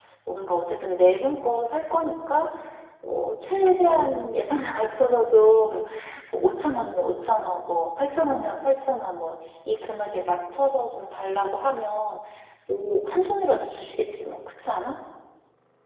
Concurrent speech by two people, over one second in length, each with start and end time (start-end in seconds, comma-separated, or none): none